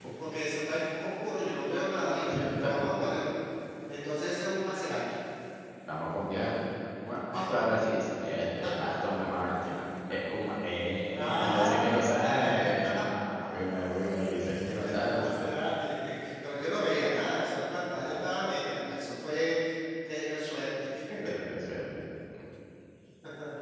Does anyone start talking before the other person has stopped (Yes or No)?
Yes